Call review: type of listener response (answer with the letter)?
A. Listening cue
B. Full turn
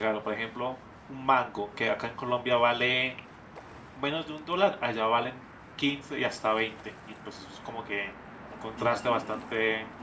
B